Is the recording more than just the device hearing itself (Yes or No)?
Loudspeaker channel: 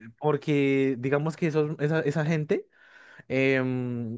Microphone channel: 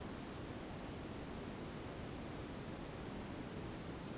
No